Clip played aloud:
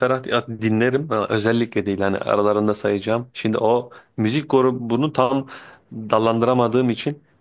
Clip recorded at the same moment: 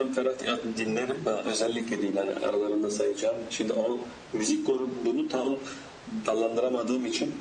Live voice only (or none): none